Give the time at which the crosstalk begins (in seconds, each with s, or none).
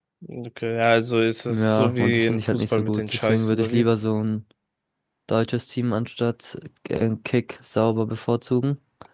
1.5 s